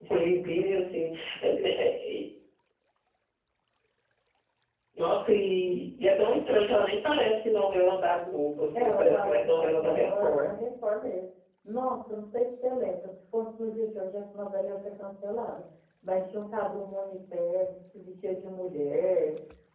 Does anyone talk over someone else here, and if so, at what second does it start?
8.7 s

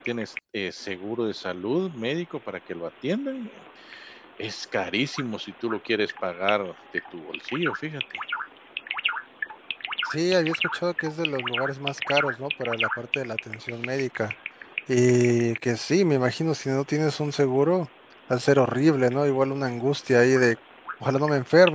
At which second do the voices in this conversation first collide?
none

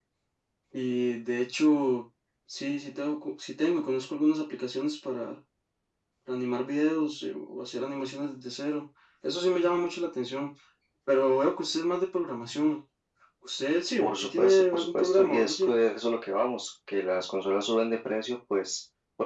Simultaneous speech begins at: 14.0 s

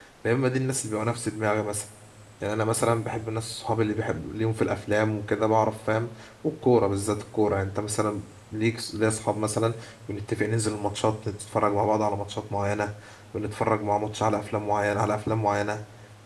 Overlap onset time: none

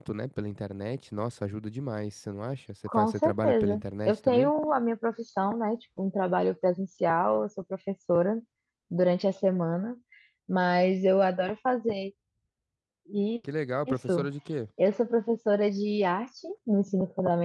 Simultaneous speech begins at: 3.0 s

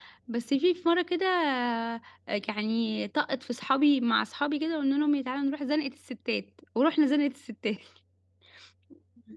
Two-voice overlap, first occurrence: none

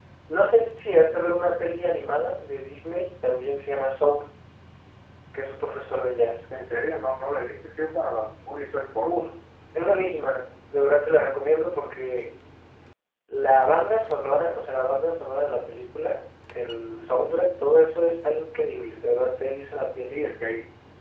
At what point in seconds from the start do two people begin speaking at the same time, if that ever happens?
none

